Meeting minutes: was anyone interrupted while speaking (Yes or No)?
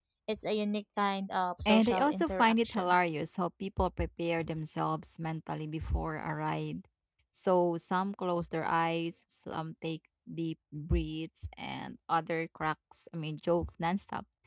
Yes